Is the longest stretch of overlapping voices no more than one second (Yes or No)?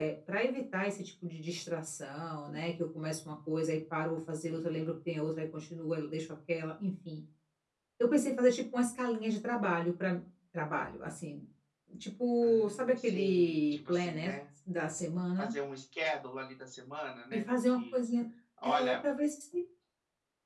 No